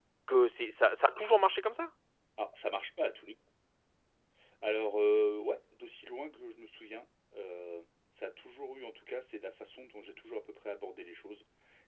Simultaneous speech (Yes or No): No